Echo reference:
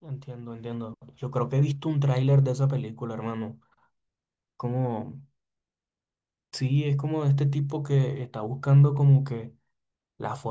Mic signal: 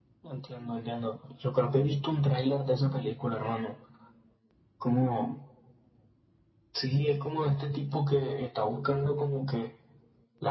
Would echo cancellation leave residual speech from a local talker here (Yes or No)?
No